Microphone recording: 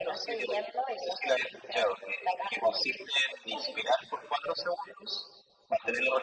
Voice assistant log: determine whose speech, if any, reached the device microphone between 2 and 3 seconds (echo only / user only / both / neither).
echo only